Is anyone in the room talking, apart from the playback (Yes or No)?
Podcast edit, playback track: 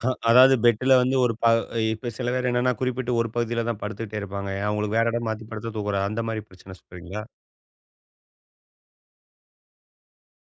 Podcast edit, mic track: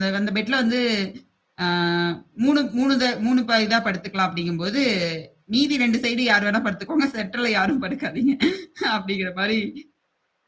Yes